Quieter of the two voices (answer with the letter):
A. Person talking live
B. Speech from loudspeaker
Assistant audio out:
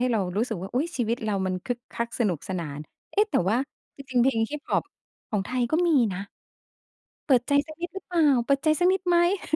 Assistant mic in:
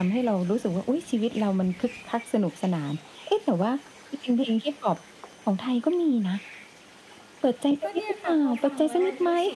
A